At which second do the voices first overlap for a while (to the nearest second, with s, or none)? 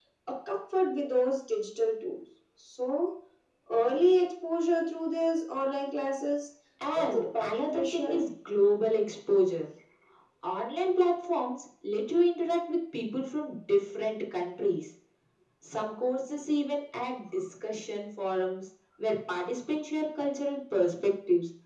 7 s